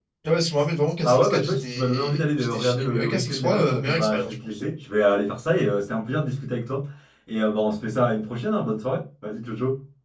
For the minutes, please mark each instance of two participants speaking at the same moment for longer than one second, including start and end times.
1.0-4.6

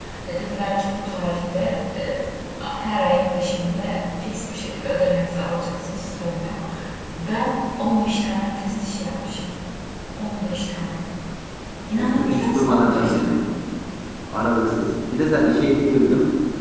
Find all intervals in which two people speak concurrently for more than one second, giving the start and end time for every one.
11.9-13.4

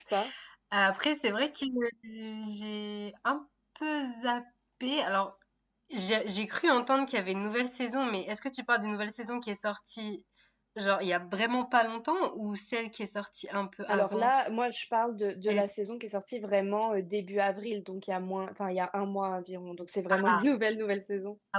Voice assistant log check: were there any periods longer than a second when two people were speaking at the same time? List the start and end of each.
none

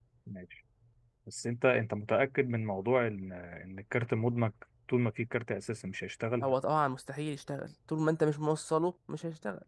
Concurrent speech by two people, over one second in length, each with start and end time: none

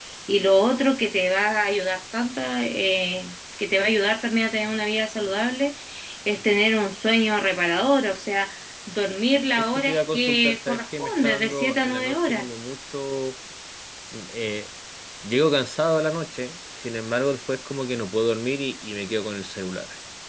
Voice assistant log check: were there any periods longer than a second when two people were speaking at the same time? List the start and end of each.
9.6-12.4

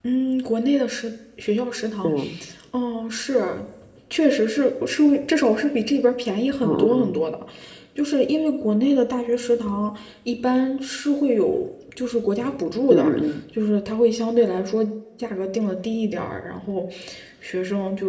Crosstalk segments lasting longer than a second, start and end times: none

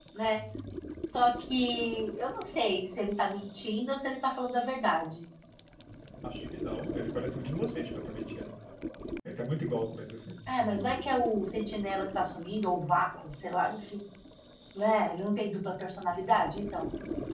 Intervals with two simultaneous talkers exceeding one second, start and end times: none

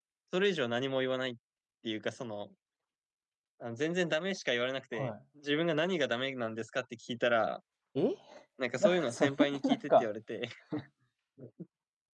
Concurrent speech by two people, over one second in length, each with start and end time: 8.8-10.1

